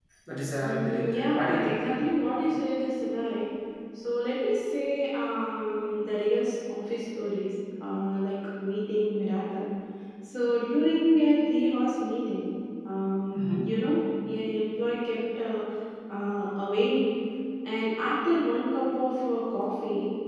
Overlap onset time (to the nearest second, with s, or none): 1 s